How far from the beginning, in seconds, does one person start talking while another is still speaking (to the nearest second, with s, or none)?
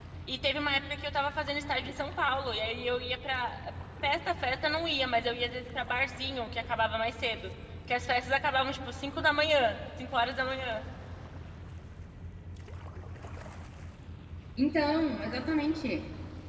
none